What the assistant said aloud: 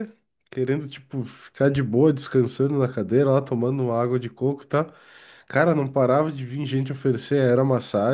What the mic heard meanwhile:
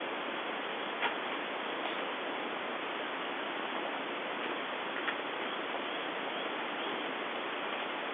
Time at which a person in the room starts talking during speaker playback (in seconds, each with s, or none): none